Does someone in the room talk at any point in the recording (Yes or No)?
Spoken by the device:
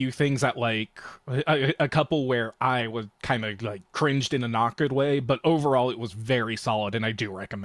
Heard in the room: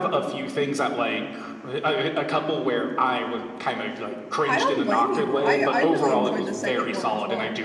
Yes